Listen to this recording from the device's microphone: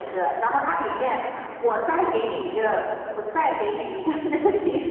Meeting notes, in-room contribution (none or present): none